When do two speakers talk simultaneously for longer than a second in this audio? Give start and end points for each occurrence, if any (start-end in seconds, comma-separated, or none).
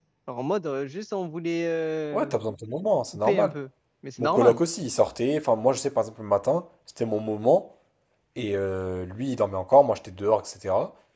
none